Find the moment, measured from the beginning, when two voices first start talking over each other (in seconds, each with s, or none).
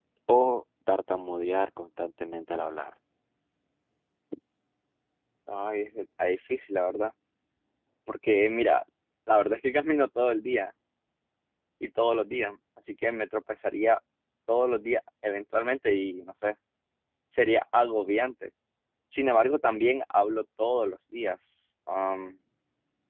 none